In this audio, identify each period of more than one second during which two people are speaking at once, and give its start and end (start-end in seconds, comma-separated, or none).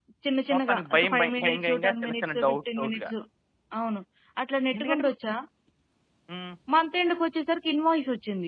0.5-3.1